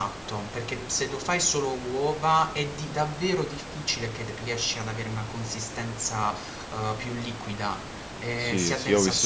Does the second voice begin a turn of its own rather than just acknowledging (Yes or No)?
Yes